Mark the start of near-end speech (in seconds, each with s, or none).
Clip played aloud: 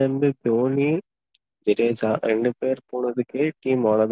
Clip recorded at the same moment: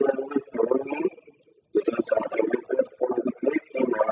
none